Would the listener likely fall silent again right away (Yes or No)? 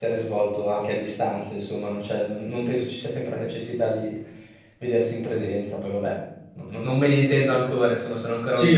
No